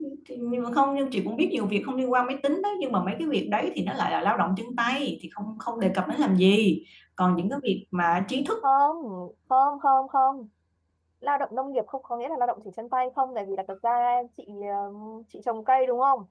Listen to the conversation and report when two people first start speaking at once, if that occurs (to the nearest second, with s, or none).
none